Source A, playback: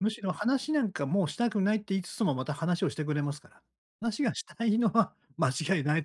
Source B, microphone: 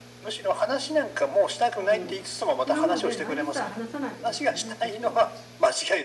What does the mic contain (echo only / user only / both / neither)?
both